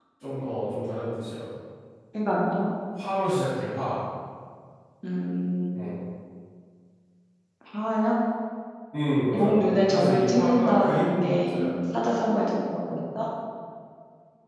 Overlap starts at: 9.3 s

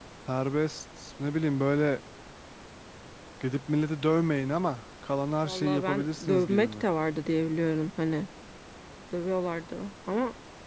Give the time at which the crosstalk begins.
5.5 s

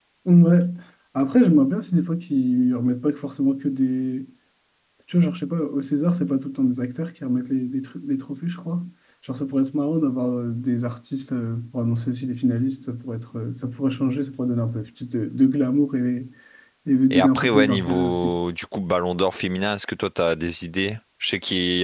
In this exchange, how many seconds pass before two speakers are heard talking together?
17.1 s

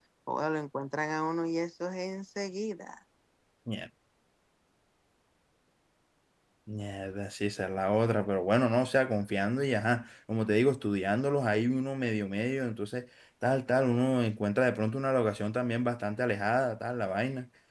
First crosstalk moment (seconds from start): none

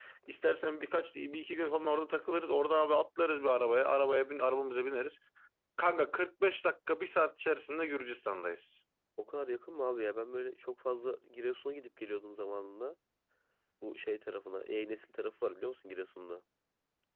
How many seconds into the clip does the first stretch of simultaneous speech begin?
none

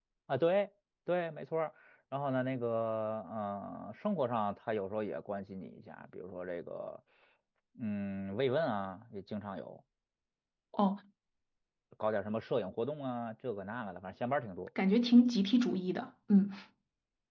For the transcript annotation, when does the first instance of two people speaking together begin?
none

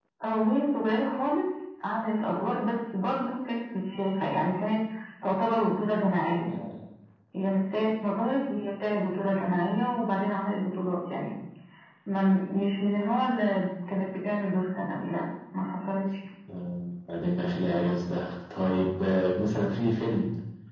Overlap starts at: none

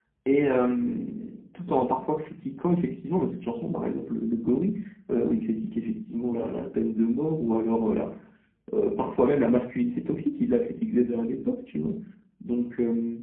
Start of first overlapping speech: none

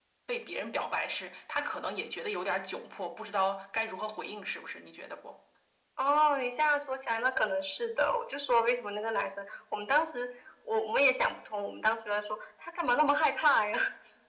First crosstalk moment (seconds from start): none

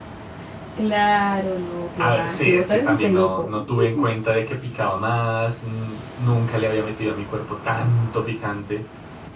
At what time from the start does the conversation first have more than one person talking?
2.0 s

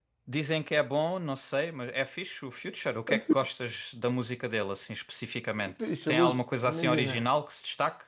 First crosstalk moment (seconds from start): 5.6 s

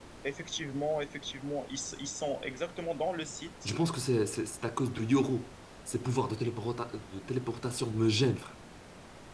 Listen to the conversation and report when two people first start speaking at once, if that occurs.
none

